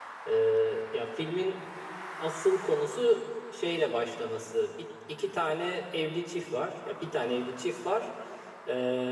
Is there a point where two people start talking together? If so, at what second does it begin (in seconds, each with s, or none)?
none